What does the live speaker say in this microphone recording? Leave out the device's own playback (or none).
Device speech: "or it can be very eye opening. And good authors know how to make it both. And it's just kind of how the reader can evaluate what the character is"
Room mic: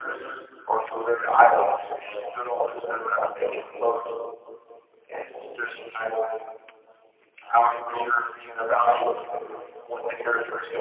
none